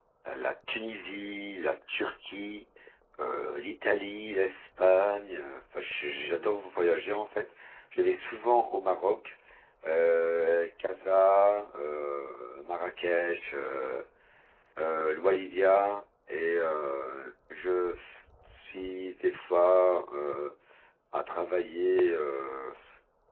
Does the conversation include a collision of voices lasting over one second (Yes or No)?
No